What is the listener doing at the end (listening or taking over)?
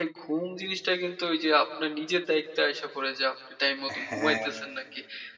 listening